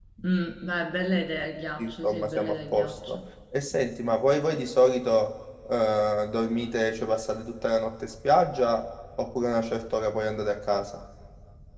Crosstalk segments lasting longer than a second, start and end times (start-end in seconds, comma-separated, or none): 1.8-3.2